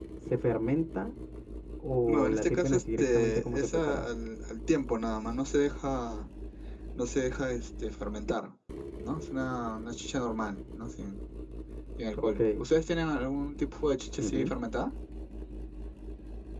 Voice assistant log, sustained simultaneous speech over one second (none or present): present